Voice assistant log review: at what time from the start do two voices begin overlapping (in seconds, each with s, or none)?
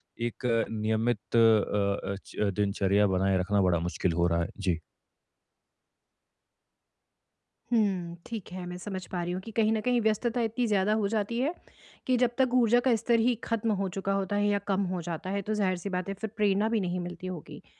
none